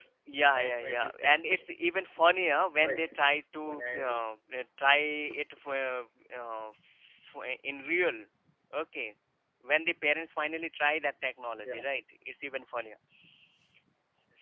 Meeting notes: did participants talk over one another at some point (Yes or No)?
Yes